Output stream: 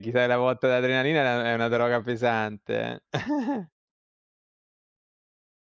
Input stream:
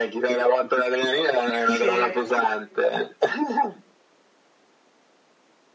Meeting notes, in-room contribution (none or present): present